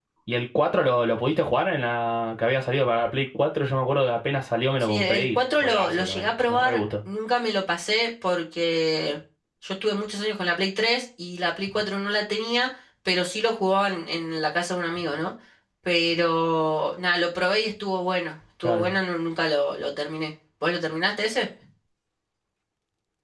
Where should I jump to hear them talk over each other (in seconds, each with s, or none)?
4.8 s